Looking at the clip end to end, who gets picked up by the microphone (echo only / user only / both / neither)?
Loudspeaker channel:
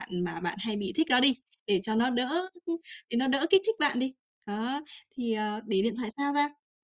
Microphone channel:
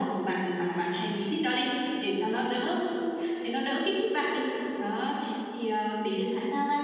echo only